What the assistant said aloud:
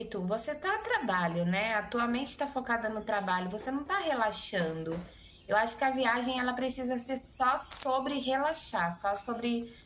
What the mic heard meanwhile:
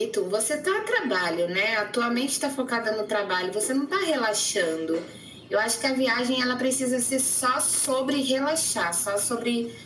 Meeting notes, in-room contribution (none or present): none